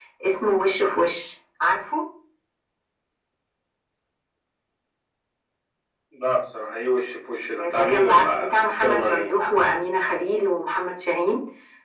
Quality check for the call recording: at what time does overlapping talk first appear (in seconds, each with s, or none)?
7.6 s